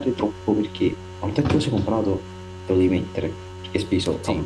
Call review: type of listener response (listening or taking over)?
listening